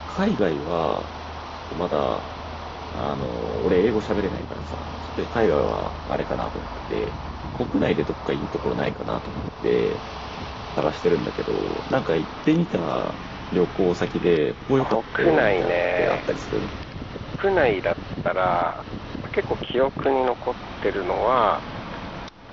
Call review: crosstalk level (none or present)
present